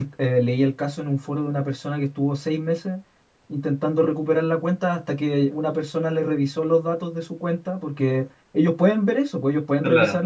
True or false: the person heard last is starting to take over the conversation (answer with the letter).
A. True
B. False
B